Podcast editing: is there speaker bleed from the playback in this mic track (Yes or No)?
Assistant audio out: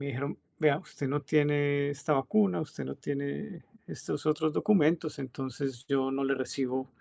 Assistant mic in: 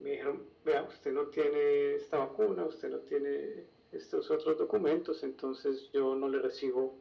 Yes